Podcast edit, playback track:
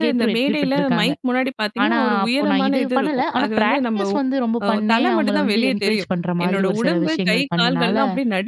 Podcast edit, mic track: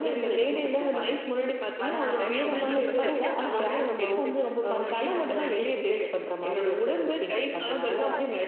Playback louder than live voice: Yes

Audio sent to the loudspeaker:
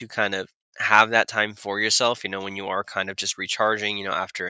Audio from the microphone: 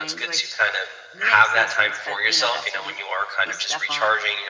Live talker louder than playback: No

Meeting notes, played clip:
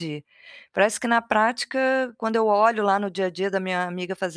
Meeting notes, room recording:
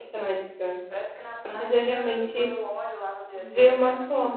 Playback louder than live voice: No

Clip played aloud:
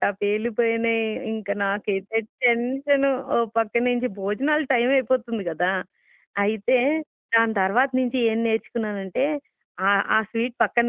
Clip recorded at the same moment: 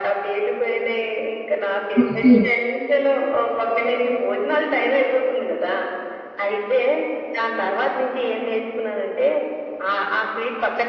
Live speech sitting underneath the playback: No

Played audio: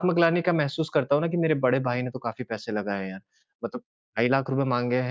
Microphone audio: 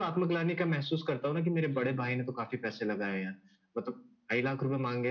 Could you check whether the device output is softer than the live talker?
No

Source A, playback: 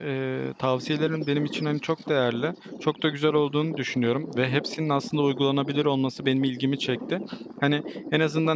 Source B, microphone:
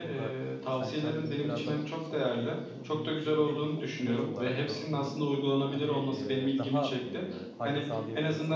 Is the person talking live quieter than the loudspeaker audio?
Yes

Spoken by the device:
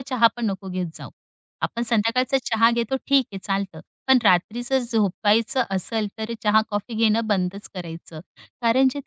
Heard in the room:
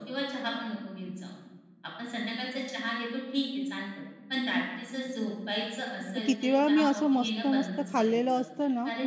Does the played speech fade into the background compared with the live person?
Yes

